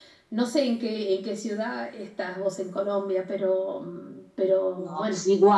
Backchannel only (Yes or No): No